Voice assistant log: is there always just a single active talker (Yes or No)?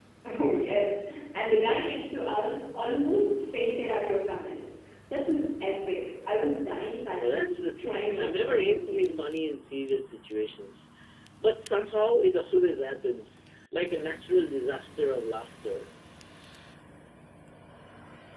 No